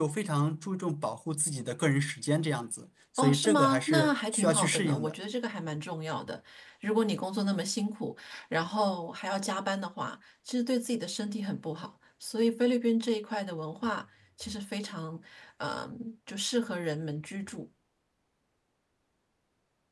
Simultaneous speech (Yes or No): Yes